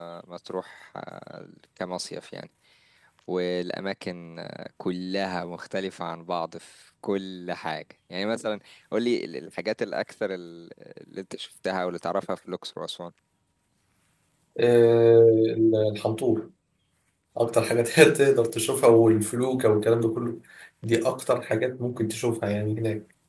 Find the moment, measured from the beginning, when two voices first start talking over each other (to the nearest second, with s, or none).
none